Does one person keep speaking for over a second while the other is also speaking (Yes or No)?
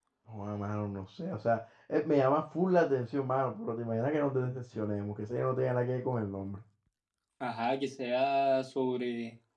No